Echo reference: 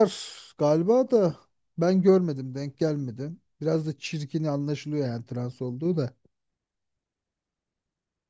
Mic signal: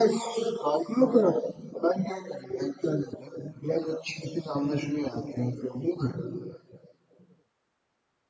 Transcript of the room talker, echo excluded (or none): none